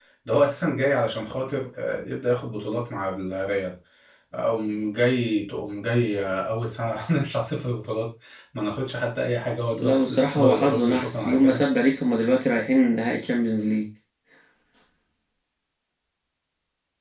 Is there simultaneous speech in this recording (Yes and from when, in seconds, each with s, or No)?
Yes, from 9.8 s